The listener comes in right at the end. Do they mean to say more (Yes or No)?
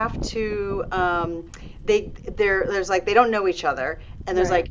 No